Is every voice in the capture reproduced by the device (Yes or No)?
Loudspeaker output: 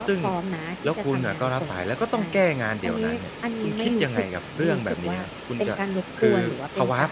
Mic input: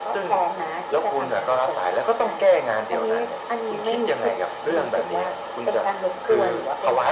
Yes